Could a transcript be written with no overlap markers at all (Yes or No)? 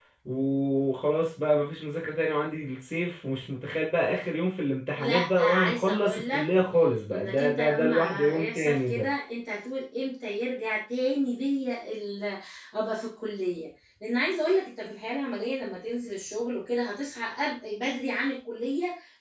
No